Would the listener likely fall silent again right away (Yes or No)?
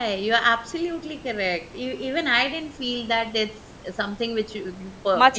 No